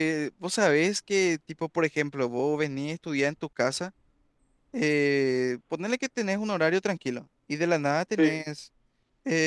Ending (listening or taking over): listening